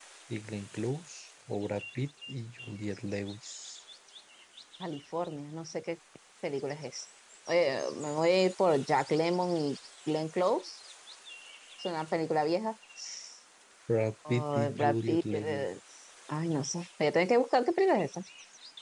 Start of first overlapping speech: 14.3 s

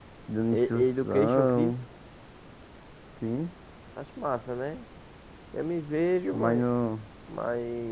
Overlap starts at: 0.5 s

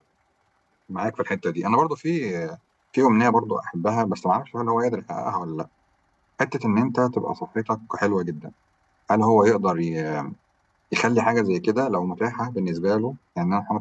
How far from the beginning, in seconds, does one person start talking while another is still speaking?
none

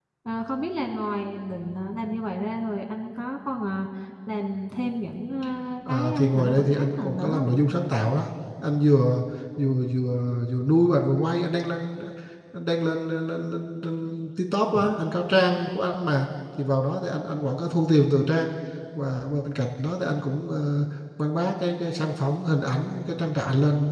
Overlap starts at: 5.9 s

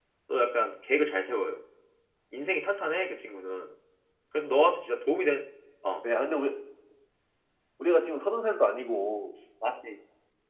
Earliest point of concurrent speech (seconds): none

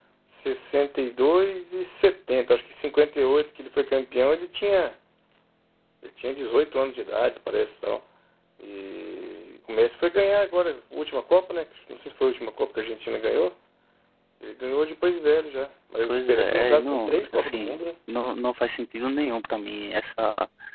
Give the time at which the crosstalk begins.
16.0 s

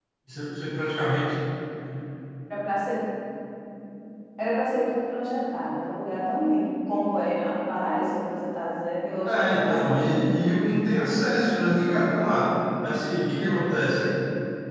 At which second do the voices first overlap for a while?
9.2 s

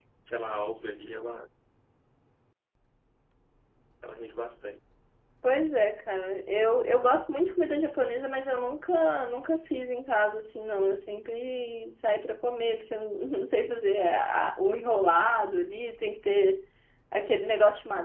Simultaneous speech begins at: none

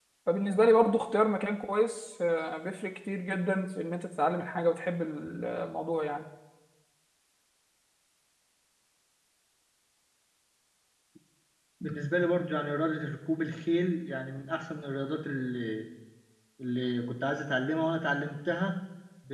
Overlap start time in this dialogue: none

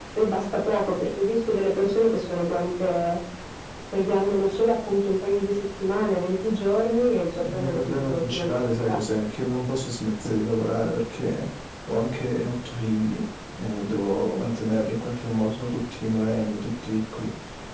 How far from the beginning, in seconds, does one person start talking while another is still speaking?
7.3 s

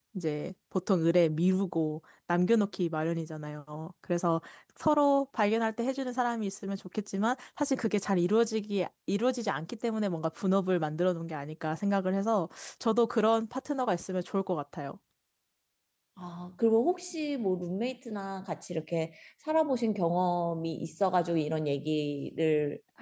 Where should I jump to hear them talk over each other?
none

